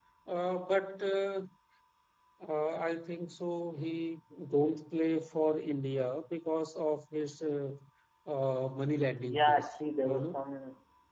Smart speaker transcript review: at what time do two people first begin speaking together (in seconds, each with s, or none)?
9.2 s